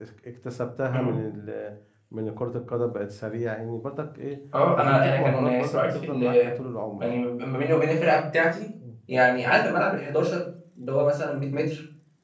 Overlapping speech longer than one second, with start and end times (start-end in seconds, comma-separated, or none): 4.8-6.2